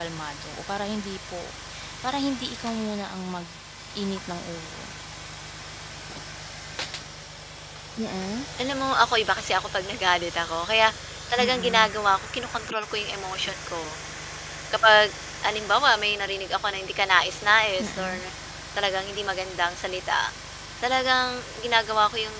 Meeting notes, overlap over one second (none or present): none